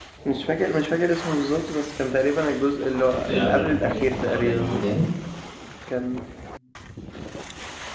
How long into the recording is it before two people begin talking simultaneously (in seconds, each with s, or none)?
3.2 s